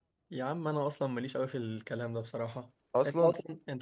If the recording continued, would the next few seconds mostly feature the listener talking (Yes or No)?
No